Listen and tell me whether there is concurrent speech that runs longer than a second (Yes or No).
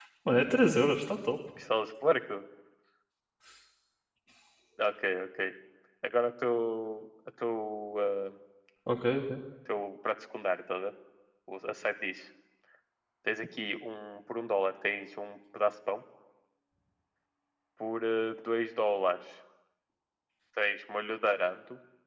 No